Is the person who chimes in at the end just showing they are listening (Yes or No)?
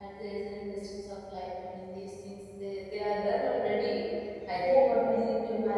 Yes